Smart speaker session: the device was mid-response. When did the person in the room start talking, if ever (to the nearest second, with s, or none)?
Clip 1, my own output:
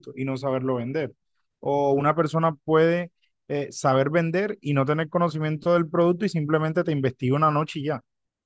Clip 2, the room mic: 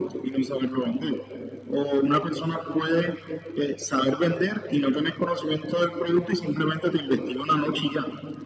none